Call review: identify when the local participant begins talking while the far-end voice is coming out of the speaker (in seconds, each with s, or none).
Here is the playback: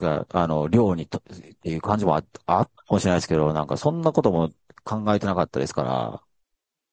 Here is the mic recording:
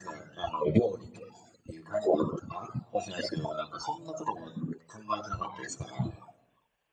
none